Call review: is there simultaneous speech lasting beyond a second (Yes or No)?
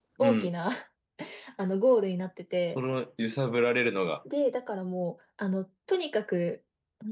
No